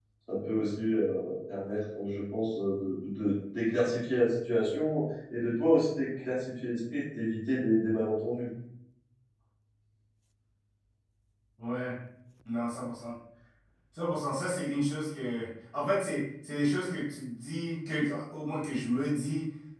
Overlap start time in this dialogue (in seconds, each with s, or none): none